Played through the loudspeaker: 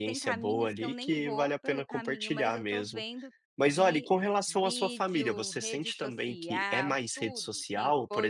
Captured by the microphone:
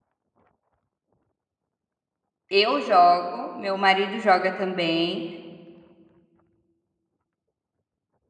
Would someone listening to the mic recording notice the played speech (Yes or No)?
No